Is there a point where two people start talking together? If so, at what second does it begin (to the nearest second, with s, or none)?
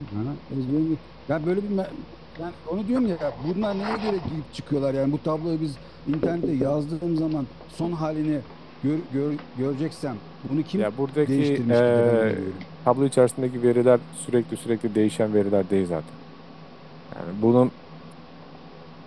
11 s